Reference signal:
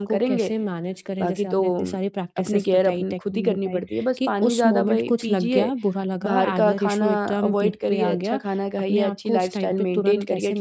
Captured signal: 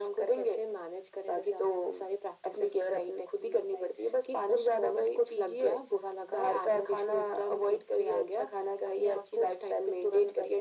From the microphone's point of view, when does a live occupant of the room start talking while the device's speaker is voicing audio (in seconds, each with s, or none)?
none